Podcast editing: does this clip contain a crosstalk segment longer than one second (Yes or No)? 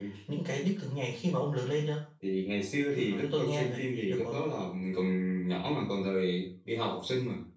Yes